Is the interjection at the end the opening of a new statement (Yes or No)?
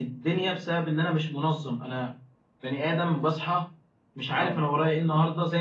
No